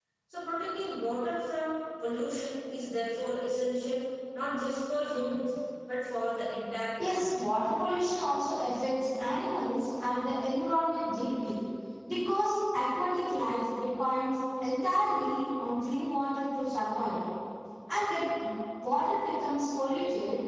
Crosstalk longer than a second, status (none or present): none